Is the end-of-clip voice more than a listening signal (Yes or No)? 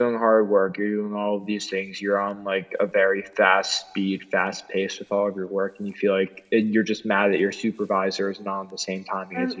Yes